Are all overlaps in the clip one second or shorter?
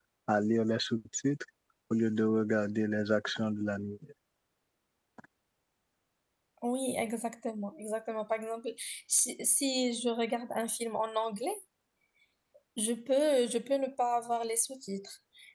Yes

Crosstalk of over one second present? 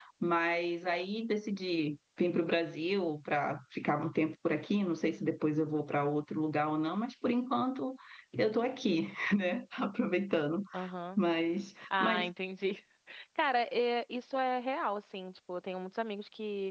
No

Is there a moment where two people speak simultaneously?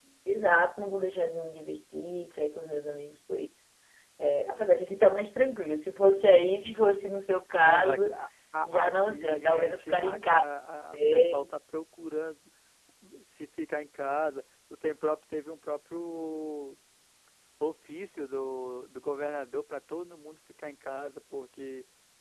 Yes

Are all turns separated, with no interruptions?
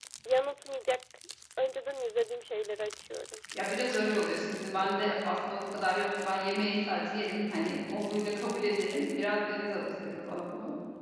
Yes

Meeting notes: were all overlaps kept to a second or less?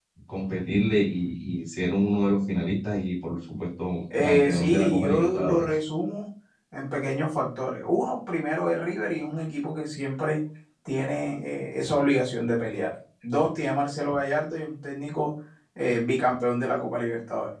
No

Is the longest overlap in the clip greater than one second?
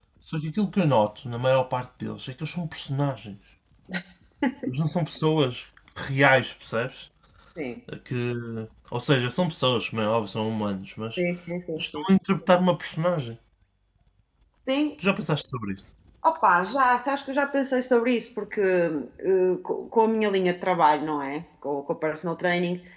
No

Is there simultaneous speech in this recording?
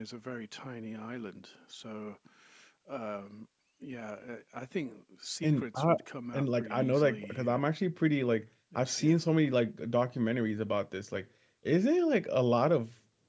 Yes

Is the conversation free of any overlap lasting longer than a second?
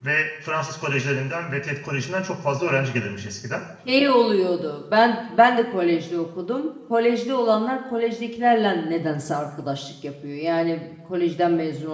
Yes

